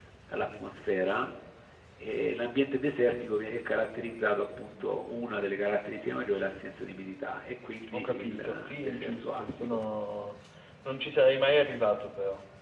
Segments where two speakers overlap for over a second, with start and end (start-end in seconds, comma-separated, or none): 7.9-9.8